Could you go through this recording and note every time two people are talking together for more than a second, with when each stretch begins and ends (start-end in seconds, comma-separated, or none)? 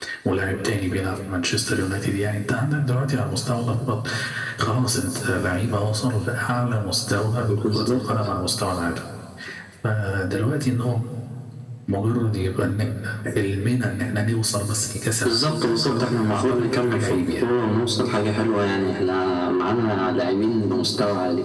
15.2-17.4